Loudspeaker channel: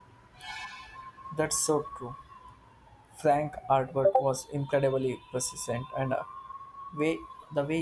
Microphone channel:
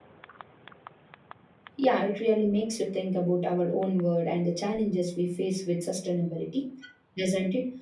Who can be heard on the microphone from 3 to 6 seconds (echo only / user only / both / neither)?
user only